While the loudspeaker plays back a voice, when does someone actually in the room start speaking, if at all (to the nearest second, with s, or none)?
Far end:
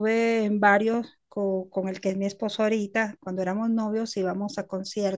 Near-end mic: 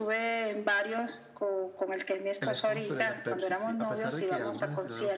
2 s